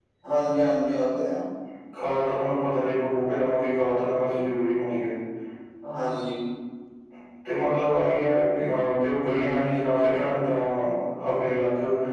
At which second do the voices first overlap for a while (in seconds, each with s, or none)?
none